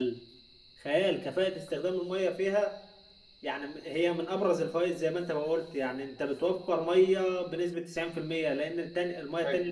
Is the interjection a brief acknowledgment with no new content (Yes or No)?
No